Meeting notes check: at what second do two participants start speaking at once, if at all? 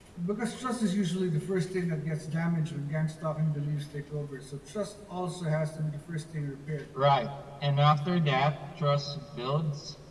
none

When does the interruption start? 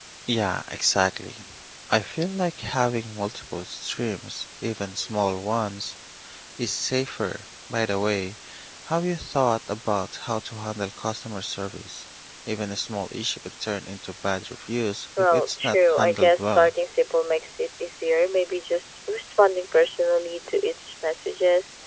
15 s

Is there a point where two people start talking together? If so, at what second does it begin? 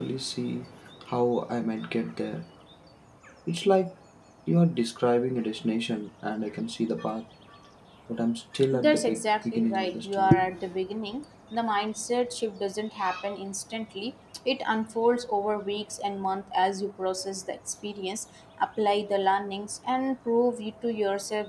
9 s

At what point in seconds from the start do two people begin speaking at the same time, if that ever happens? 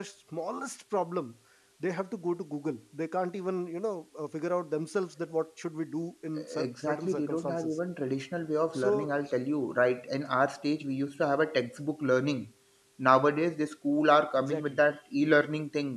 7 s

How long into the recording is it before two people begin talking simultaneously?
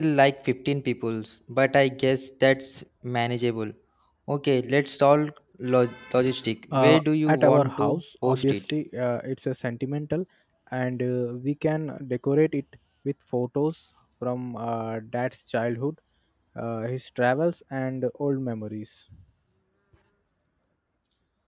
7 s

